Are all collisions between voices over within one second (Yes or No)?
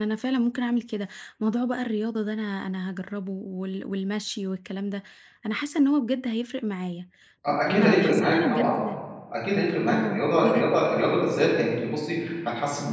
No